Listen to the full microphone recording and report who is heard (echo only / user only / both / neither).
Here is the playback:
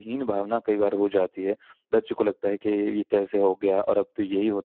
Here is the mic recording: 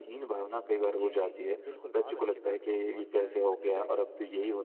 both